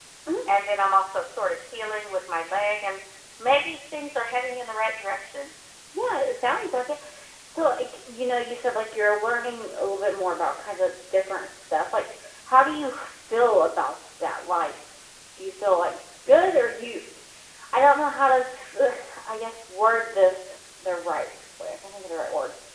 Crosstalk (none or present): none